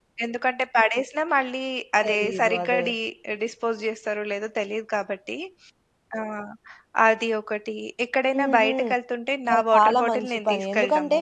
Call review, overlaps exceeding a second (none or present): present